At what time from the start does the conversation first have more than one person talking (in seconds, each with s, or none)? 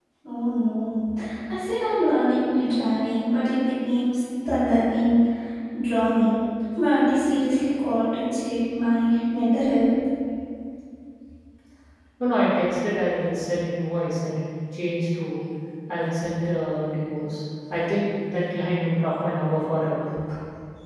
none